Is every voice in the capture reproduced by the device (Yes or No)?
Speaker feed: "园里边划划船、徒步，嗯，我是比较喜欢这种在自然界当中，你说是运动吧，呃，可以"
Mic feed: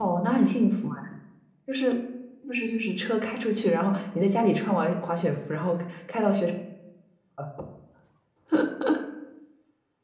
No